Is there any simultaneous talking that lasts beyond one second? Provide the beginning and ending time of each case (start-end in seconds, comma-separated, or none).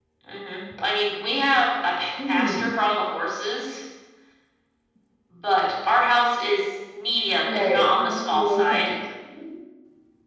7.5-8.9